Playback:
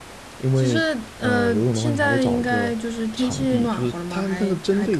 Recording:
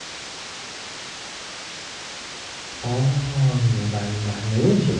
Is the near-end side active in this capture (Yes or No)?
Yes